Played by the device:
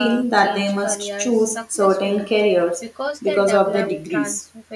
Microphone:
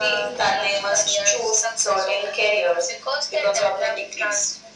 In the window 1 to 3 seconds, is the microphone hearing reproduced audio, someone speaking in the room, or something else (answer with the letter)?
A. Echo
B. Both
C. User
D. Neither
A